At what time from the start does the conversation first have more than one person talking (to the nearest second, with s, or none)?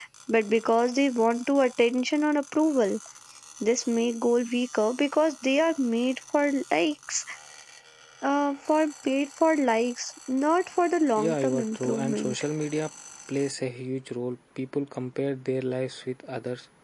11 s